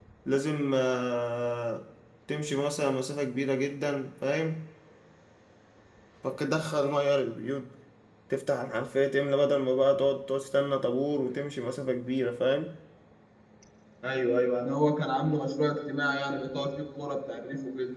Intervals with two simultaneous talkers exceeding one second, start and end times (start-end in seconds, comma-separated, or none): none